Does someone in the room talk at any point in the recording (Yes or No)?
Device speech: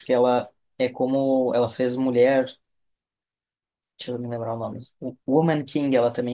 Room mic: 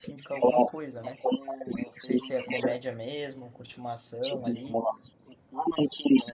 Yes